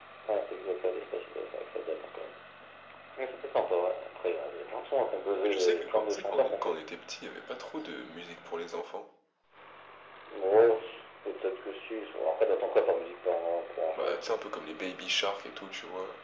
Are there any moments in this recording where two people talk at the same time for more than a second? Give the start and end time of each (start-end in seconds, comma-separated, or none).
5.5-6.8